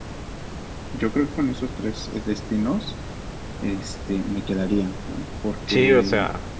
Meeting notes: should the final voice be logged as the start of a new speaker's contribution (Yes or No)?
Yes